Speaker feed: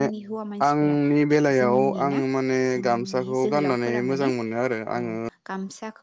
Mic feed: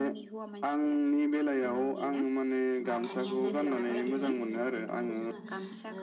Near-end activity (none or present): present